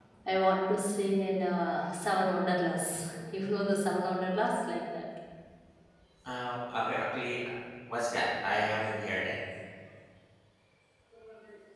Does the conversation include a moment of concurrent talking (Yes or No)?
No